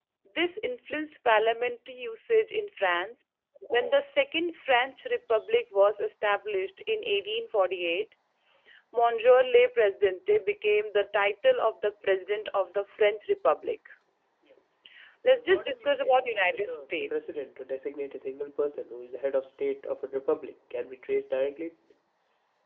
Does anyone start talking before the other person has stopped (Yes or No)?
Yes